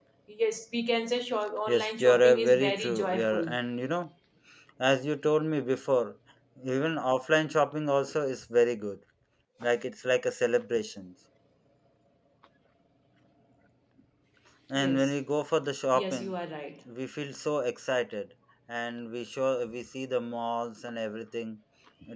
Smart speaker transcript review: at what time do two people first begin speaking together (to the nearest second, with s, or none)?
2 s